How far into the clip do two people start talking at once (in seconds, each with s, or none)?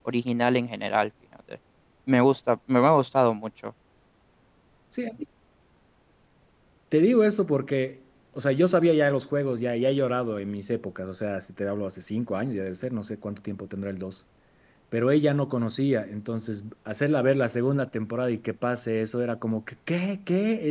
none